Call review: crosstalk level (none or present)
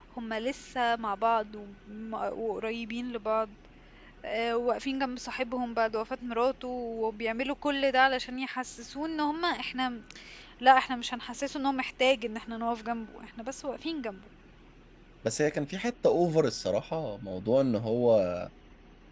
none